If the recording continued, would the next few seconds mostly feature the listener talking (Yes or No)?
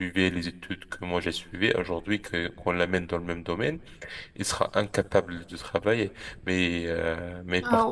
Yes